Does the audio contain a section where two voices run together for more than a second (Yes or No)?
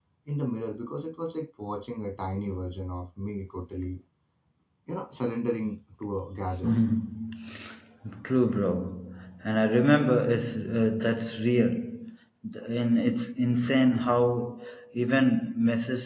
No